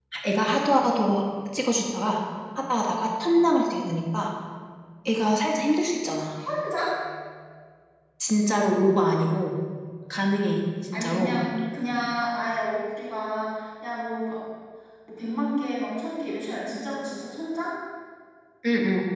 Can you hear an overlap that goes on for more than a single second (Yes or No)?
No